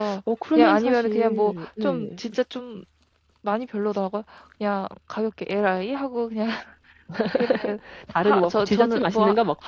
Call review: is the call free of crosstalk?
No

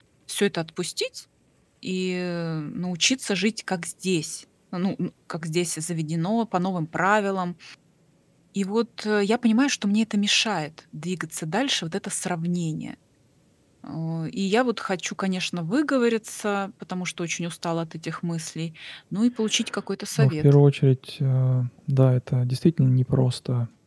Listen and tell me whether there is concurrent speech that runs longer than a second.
No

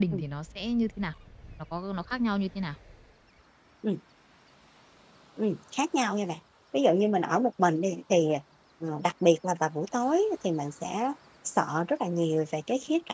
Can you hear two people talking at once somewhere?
No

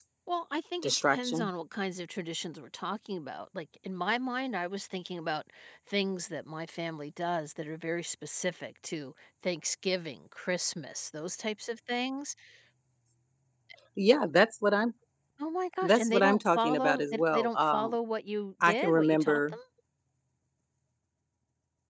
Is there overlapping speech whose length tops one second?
Yes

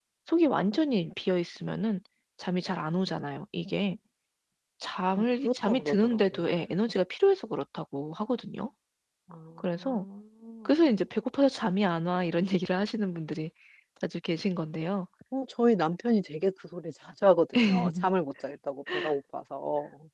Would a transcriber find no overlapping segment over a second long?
No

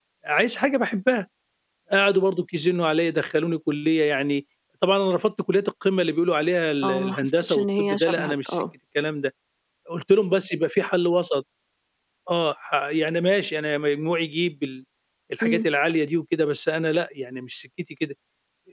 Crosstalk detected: Yes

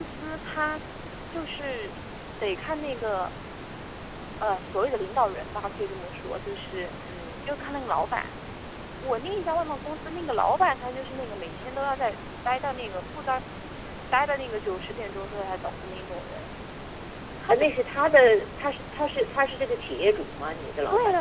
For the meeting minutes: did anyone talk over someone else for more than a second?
No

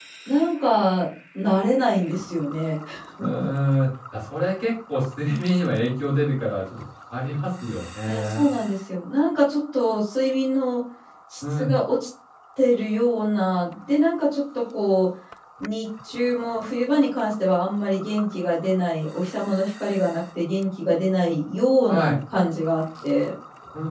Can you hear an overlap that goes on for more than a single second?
No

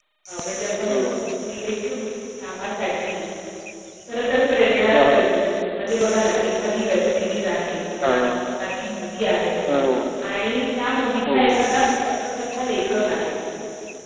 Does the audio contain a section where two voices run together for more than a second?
No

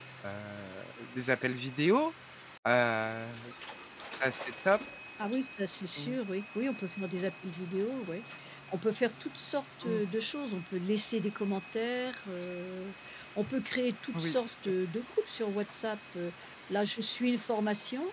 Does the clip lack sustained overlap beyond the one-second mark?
Yes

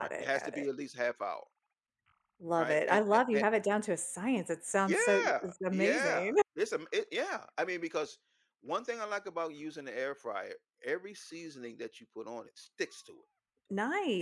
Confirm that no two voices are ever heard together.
No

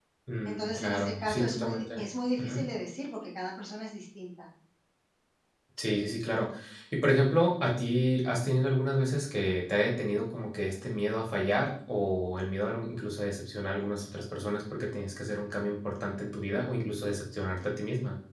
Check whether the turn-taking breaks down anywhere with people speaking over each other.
Yes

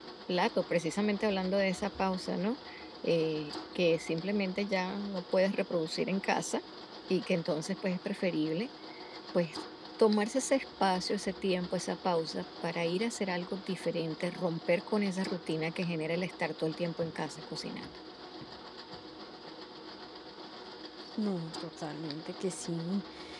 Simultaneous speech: No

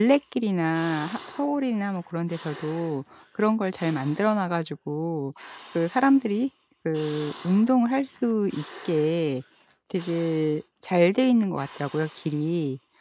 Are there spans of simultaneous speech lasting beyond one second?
No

